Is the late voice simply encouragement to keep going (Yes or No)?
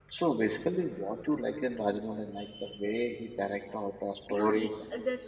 No